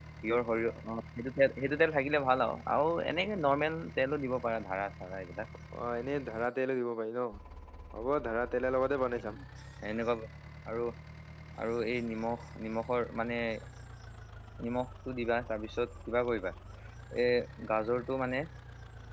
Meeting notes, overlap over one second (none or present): none